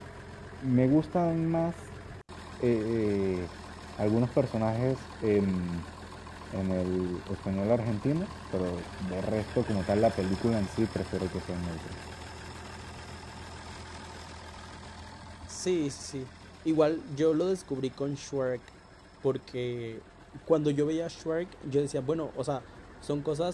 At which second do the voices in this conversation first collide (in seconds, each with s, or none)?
none